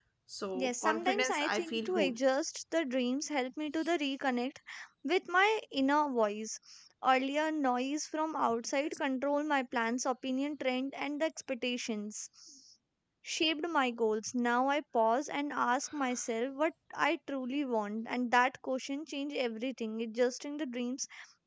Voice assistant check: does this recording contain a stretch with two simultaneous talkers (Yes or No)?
Yes